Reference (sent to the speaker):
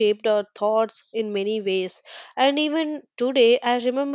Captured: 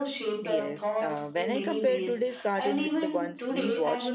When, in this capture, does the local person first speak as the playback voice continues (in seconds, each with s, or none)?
0.4 s